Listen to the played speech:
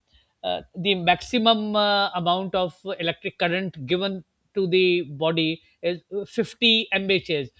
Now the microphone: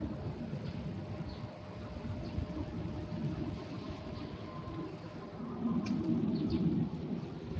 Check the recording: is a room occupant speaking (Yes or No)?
No